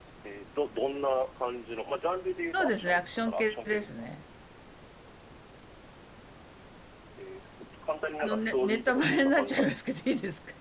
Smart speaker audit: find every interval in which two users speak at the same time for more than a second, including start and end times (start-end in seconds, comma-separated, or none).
2.5-4.1, 8.2-9.8